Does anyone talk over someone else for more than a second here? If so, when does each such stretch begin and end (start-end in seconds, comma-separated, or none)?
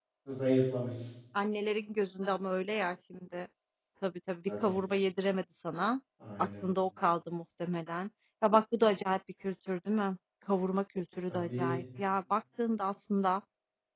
none